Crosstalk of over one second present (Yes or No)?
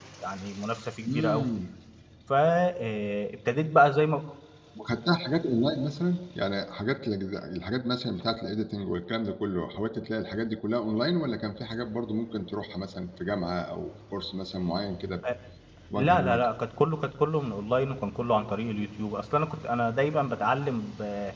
No